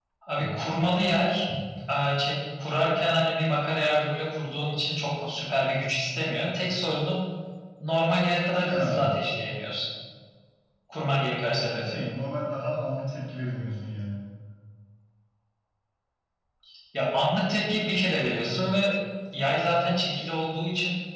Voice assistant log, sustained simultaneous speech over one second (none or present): none